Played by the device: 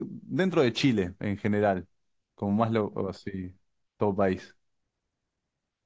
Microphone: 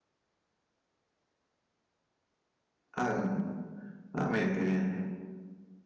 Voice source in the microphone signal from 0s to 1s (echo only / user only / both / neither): neither